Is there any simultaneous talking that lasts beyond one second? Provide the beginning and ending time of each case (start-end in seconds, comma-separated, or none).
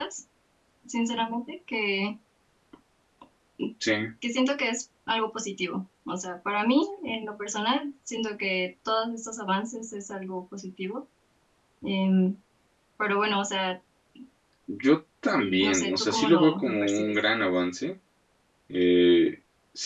15.4-17.2